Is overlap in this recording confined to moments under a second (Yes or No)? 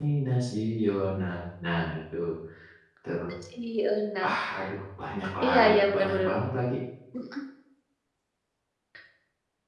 Yes